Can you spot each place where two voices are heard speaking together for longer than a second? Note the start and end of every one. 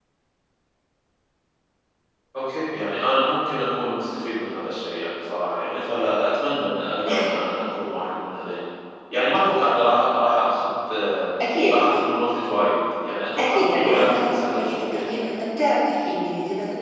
13.4-14.8

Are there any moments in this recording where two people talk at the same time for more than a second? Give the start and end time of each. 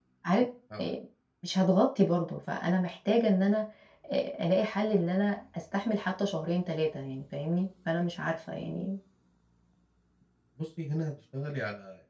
none

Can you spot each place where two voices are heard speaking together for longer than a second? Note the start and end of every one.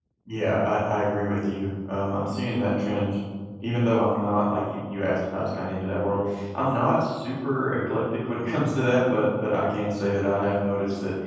none

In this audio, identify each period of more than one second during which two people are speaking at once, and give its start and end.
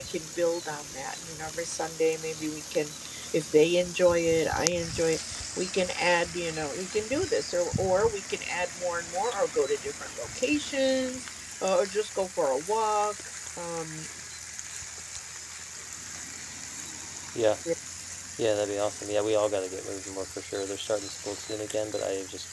none

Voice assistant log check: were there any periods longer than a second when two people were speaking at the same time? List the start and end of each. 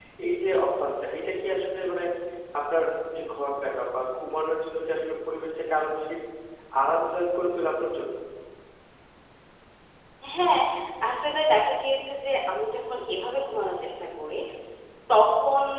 none

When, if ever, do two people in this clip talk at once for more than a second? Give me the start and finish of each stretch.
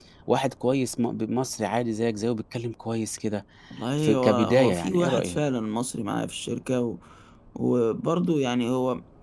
4.0-5.4

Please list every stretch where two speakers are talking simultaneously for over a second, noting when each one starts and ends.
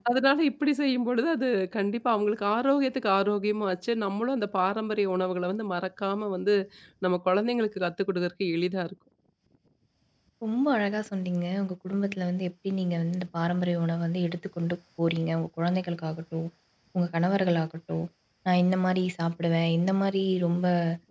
none

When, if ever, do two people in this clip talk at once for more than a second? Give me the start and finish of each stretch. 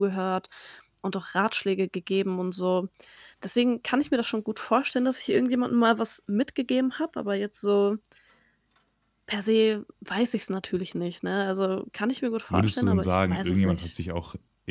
12.5-13.9

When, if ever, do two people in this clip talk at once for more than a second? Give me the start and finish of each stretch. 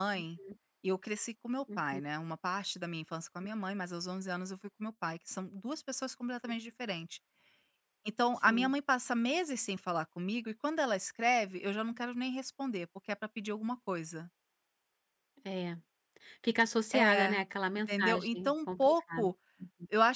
17.9-19.3

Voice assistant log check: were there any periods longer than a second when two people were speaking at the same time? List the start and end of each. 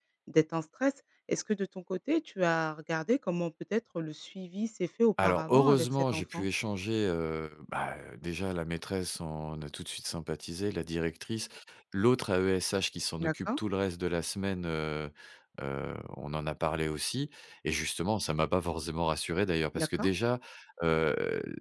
5.2-6.5

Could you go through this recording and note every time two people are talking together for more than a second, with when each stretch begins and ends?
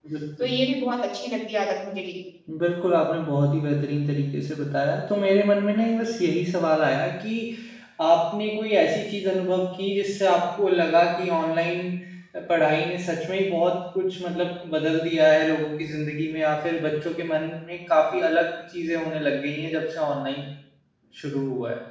none

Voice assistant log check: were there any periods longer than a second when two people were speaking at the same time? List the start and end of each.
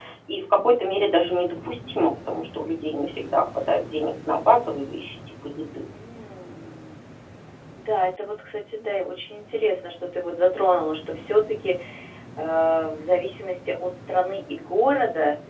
none

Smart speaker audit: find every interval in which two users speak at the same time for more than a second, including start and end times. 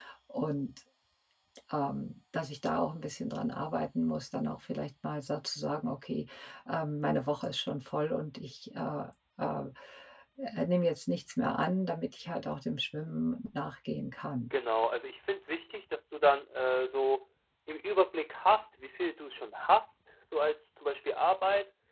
none

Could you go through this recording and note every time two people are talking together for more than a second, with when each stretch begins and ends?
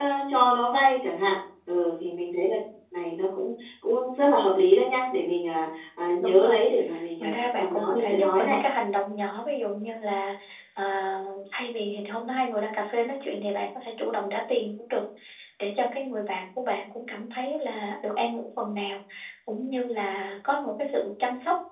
7.2-8.6

